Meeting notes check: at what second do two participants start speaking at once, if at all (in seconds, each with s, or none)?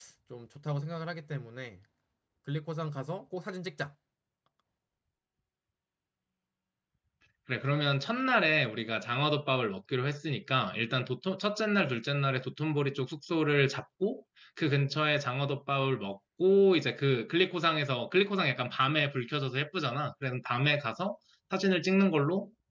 none